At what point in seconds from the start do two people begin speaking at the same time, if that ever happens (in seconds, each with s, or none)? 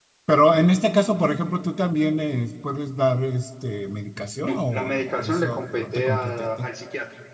4.4 s